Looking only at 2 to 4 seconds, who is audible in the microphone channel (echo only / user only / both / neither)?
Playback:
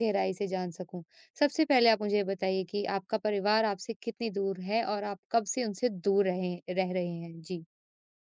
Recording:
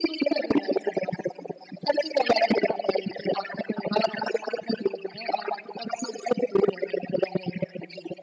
echo only